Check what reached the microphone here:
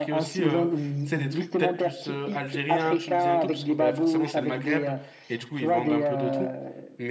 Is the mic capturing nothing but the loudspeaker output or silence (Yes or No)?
No